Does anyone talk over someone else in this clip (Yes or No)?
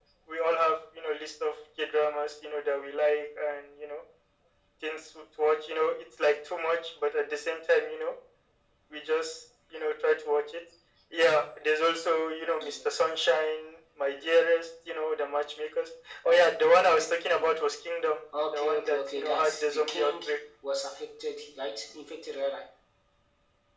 Yes